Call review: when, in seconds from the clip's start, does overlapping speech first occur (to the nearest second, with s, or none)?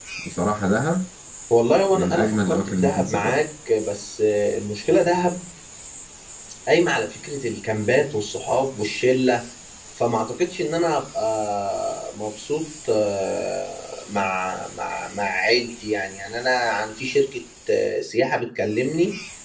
2 s